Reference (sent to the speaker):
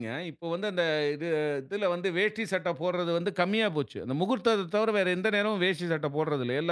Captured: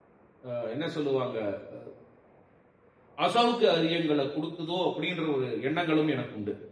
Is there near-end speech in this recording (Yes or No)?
Yes